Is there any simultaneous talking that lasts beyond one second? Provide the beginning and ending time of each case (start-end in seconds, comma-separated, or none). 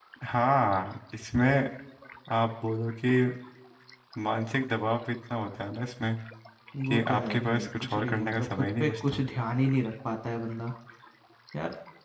6.9-9.2